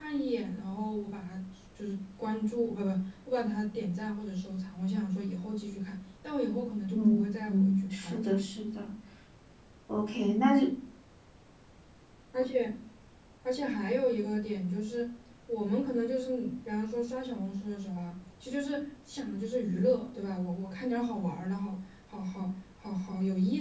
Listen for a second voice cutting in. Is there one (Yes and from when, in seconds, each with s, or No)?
Yes, from 6.9 s